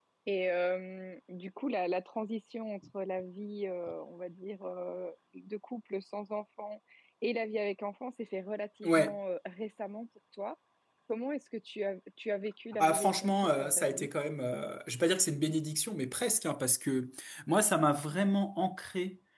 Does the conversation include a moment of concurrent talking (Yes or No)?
Yes